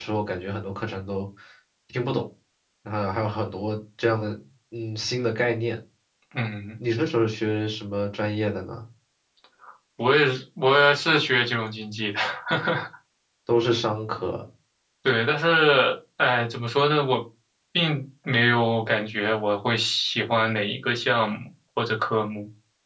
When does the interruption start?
none

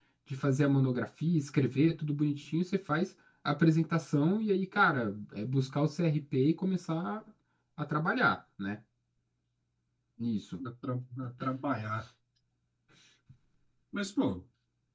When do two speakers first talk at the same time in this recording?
none

